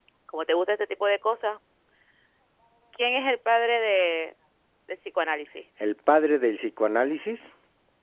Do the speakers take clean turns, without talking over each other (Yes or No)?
Yes